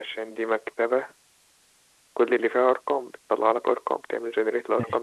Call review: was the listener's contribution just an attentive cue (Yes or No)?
No